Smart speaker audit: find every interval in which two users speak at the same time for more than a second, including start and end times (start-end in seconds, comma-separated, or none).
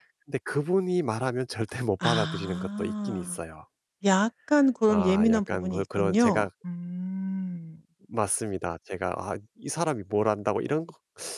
2.0-3.4, 4.9-6.5